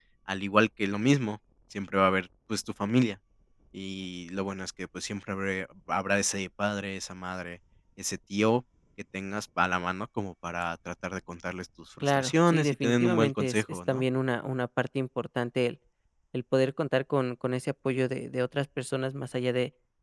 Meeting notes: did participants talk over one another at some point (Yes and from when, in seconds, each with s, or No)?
Yes, from 12.0 s